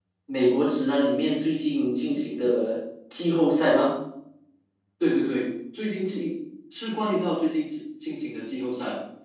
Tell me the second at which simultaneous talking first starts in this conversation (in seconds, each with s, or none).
none